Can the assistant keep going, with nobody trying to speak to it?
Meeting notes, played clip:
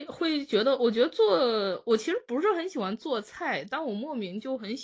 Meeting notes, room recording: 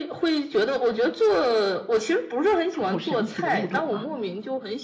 No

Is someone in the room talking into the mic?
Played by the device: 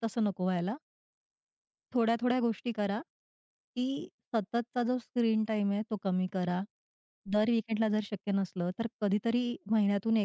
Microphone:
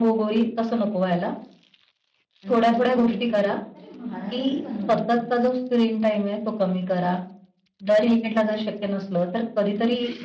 Yes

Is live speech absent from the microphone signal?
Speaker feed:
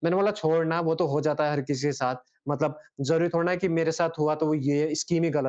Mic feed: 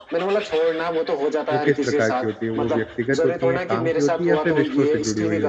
No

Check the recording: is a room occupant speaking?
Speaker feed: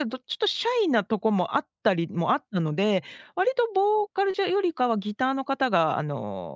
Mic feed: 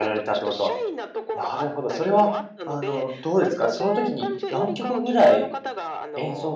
Yes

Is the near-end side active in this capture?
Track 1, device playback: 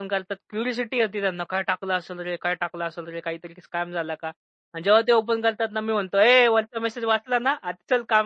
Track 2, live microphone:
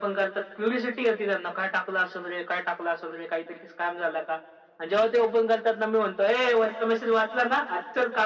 No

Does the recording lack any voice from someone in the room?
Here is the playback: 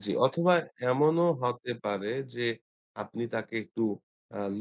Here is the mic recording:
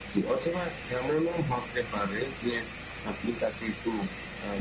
Yes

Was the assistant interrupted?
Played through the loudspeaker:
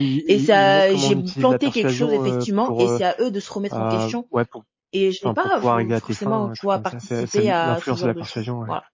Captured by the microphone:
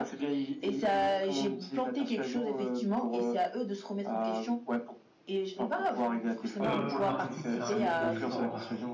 Yes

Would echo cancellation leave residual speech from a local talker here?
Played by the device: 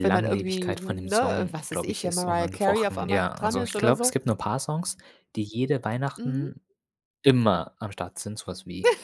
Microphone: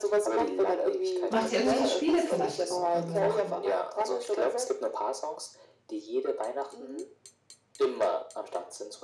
Yes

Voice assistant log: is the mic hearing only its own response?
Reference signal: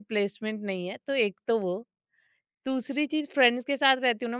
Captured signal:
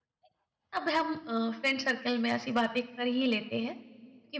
No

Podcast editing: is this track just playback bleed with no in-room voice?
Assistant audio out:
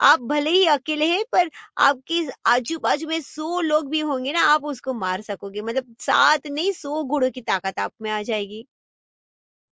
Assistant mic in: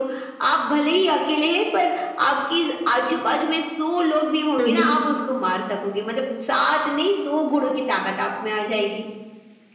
No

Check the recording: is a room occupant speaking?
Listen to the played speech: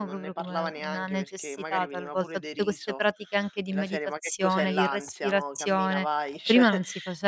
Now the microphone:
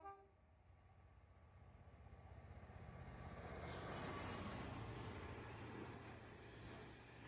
No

